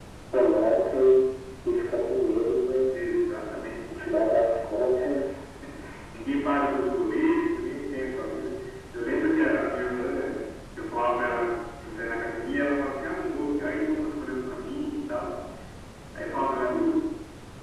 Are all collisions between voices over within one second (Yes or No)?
Yes